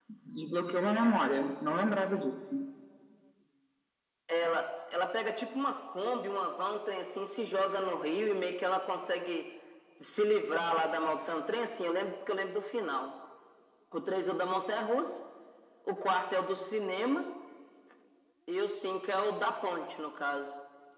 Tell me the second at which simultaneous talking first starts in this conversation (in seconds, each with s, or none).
none